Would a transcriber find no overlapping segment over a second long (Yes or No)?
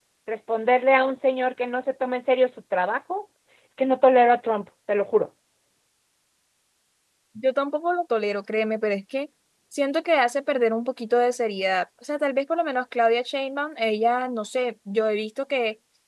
Yes